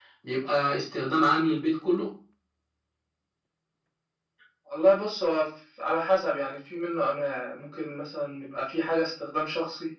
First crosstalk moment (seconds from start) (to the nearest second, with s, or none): none